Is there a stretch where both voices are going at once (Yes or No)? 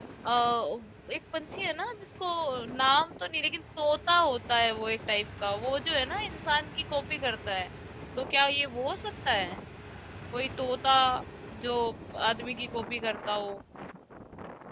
No